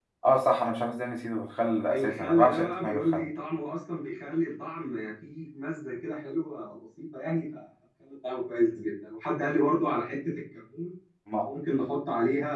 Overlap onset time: 1.9 s

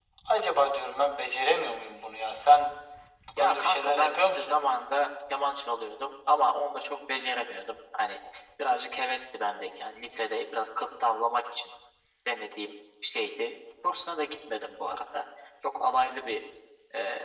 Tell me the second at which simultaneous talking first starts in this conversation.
3.4 s

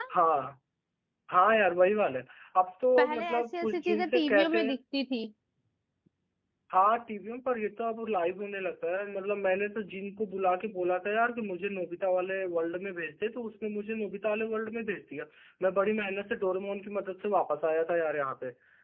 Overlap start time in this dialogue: 3.0 s

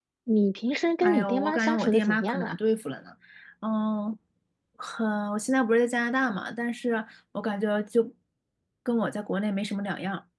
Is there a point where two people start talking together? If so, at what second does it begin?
1.0 s

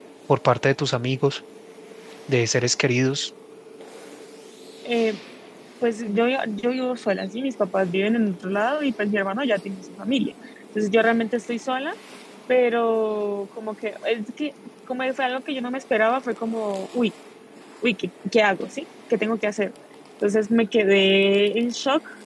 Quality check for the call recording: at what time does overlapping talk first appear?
none

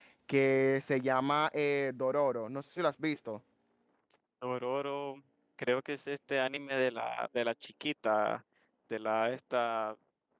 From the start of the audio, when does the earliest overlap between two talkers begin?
none

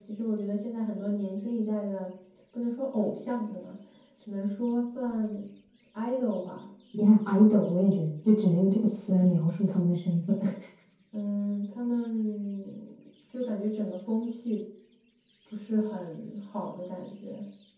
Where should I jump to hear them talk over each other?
none

